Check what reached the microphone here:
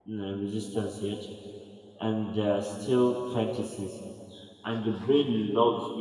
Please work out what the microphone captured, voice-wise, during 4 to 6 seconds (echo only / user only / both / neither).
user only